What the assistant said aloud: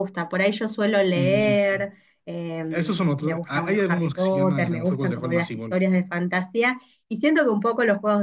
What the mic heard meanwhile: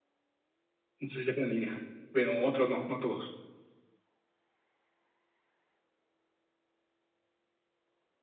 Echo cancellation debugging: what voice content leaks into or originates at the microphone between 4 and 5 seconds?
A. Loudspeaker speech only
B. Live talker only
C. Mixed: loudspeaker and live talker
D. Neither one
D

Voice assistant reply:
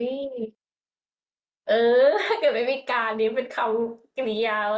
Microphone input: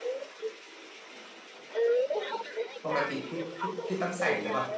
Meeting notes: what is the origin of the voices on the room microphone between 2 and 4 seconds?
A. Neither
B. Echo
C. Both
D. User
C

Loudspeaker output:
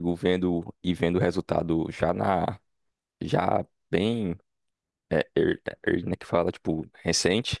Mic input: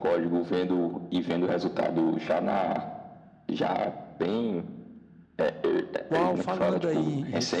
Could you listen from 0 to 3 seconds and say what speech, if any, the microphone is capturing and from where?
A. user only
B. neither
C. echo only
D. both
C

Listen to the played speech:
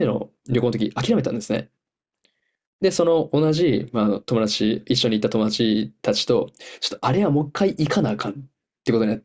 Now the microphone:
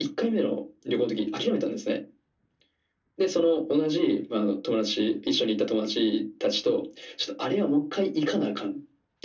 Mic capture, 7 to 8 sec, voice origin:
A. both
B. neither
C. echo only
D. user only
C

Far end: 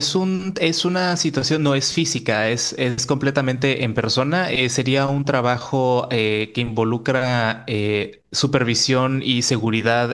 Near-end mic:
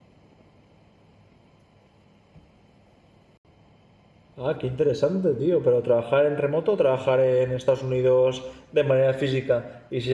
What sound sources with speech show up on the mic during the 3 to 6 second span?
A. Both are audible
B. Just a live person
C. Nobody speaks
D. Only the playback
B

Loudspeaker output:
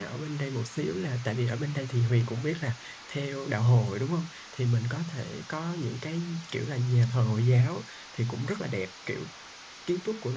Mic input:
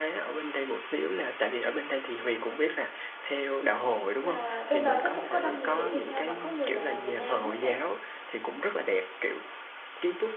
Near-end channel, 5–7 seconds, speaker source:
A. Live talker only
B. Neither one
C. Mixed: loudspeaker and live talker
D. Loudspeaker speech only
C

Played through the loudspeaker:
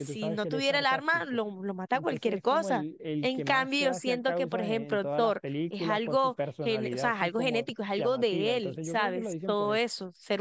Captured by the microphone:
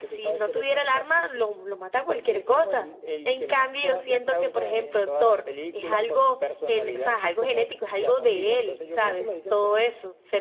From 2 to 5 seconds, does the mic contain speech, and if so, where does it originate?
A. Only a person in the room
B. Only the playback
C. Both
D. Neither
B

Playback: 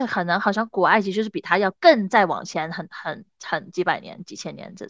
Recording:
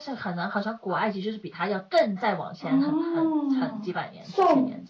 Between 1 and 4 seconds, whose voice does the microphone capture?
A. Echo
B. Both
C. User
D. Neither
B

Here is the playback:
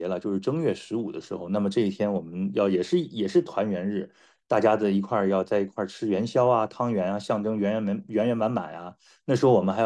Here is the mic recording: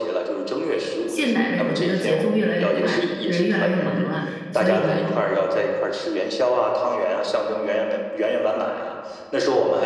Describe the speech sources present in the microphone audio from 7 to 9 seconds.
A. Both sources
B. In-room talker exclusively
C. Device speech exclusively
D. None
C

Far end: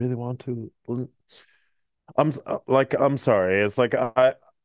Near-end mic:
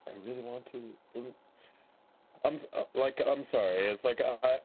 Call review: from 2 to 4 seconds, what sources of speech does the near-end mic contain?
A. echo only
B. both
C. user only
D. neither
A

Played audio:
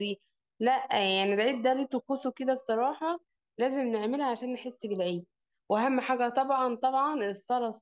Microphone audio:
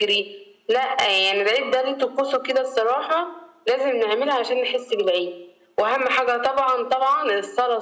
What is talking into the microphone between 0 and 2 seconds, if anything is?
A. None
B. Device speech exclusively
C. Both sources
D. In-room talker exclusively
B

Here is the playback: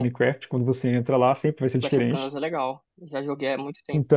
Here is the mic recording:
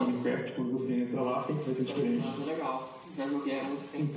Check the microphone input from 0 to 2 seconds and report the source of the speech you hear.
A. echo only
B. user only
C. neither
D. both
A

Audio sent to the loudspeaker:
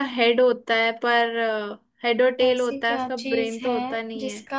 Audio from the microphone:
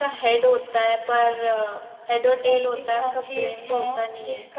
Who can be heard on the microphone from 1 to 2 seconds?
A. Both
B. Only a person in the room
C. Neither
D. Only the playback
D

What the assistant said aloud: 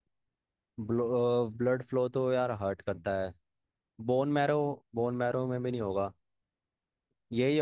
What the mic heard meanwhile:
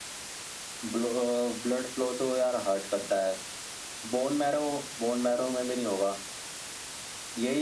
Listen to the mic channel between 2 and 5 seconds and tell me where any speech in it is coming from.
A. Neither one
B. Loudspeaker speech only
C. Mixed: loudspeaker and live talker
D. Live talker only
B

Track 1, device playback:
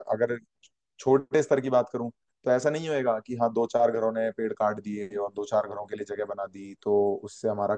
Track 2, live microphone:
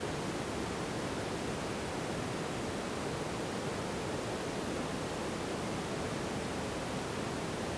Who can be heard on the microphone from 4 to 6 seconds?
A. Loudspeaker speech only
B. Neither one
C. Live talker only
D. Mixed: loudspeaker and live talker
B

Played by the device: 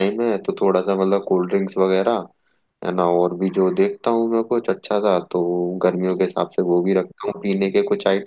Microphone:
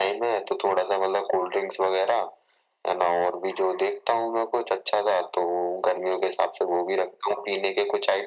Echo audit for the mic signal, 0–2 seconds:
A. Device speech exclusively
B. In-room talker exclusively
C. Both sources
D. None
A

